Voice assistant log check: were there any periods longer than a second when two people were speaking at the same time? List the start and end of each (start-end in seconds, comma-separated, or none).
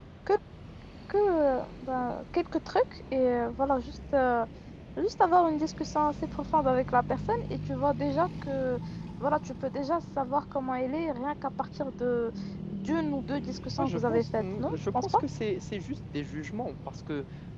13.8-15.2